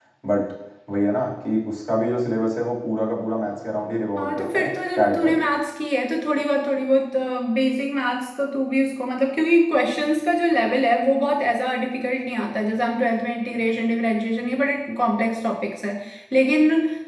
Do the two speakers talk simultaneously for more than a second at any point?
Yes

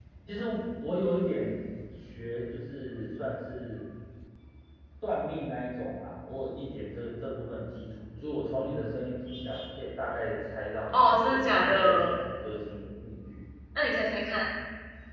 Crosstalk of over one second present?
Yes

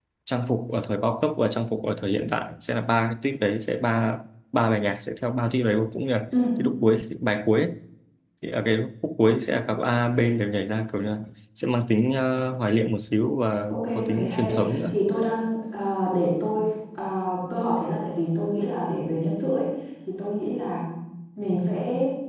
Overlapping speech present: Yes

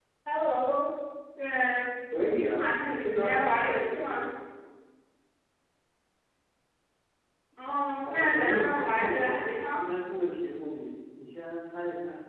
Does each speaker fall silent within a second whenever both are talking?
No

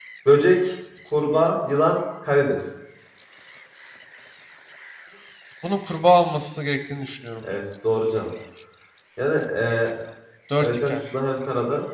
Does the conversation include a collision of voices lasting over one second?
No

